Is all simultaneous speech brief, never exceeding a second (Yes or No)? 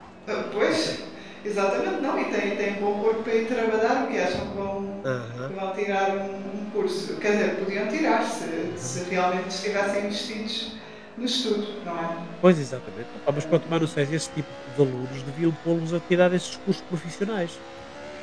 Yes